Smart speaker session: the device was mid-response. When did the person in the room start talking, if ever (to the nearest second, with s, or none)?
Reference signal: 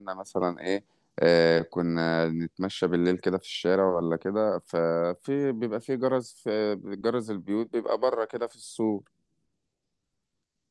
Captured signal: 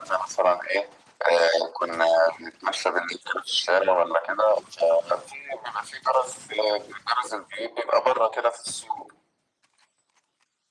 none